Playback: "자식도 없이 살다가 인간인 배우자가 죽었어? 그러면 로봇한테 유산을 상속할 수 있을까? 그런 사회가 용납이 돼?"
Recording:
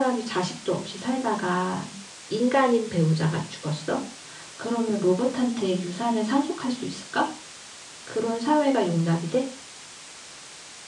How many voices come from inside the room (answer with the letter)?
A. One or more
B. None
B